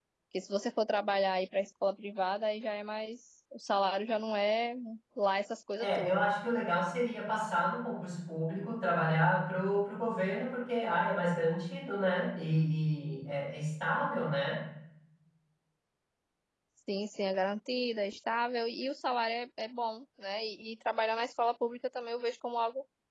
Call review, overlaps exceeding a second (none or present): none